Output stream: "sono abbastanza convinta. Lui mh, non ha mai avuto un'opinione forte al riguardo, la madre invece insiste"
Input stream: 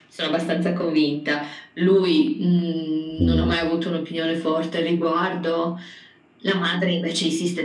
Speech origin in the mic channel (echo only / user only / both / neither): both